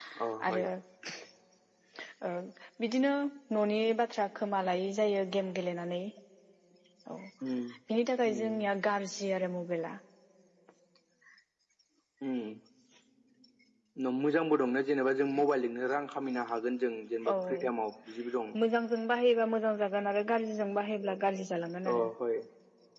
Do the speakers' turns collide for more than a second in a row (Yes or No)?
No